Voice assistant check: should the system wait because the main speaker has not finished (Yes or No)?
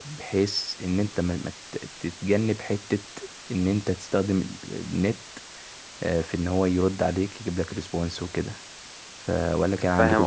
No